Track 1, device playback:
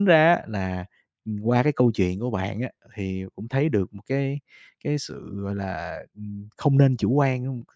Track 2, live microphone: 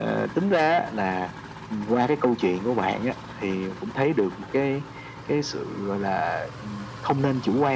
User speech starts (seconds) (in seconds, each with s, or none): none